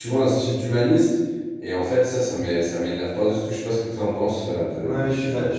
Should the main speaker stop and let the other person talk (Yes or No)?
Yes